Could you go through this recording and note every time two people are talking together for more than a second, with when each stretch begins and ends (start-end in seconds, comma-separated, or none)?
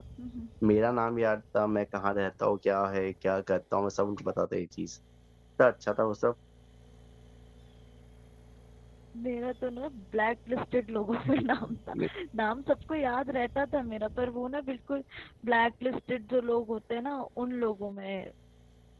none